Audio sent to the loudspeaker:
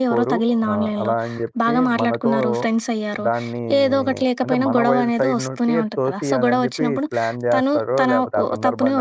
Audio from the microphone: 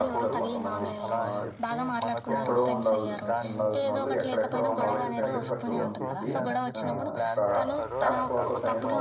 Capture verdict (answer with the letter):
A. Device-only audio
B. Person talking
B